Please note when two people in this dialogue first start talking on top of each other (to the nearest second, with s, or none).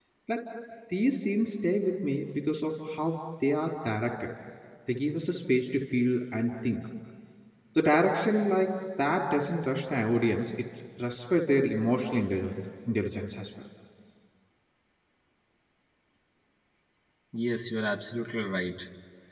none